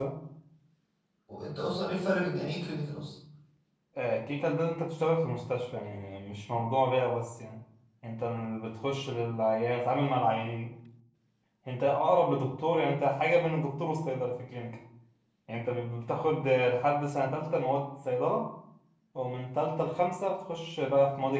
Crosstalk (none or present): none